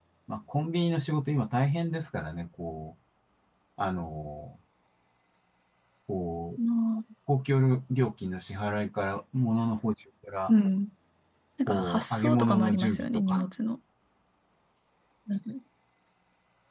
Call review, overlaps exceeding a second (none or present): present